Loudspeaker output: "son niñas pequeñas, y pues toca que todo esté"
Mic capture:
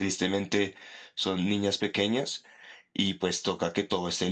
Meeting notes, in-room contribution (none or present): none